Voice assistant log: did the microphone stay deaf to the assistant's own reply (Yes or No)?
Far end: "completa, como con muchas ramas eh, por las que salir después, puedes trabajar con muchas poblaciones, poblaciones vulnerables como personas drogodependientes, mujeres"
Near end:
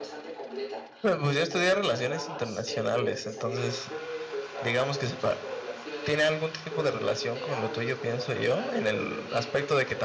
No